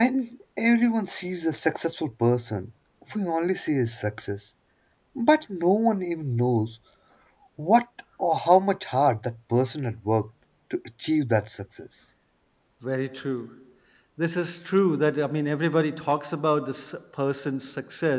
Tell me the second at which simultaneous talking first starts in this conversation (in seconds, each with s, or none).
none